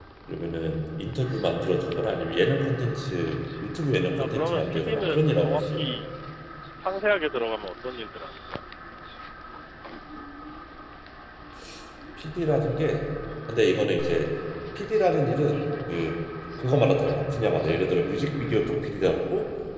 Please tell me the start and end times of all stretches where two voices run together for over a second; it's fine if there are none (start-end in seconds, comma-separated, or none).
4.2-5.8